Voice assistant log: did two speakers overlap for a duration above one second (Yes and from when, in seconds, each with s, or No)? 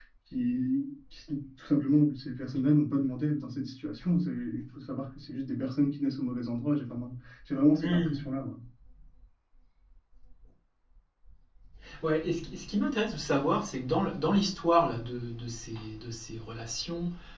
No